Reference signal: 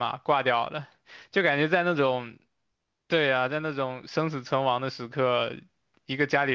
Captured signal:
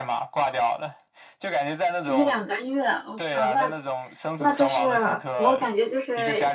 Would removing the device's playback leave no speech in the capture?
No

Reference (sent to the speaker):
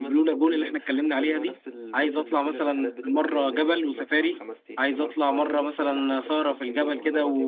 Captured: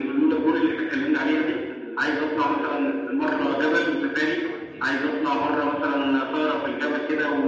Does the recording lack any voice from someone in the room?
Yes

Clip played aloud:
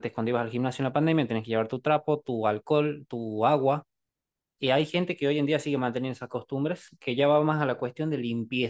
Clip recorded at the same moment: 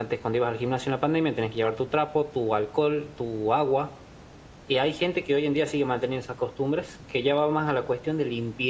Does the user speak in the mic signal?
No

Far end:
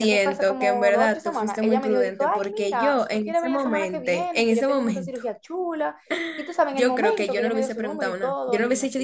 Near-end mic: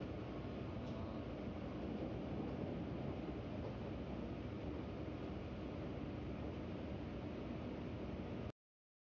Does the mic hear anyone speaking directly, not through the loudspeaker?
No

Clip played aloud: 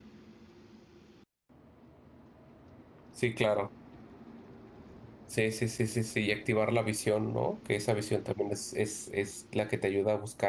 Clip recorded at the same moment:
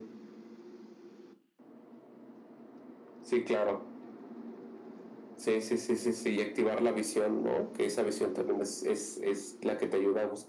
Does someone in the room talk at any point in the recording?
No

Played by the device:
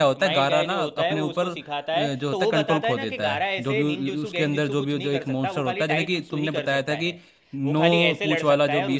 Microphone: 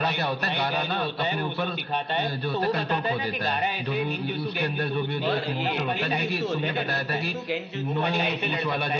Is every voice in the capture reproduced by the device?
No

